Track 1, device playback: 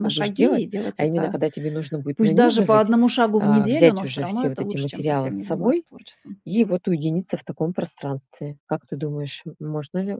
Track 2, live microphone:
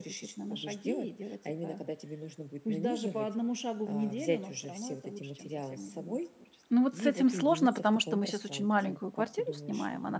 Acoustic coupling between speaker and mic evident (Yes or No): Yes